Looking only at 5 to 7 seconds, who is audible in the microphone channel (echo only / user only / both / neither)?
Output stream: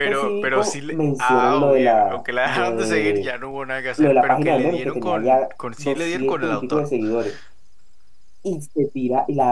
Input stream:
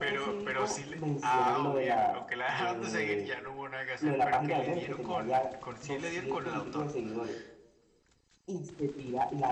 echo only